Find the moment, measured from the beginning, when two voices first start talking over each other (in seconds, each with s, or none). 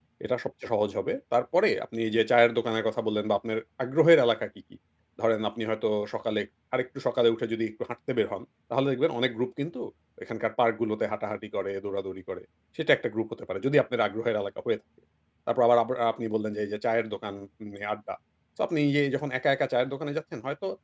none